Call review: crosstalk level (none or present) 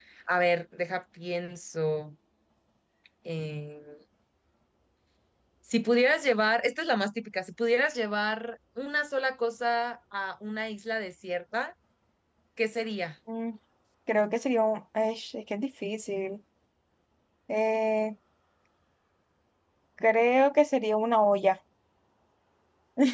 none